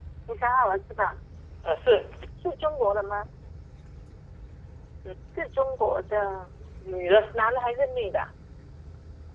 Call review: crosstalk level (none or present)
none